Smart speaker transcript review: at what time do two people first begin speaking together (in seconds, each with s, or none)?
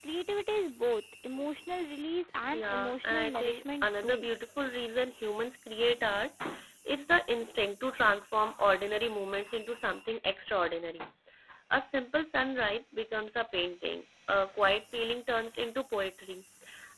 2.4 s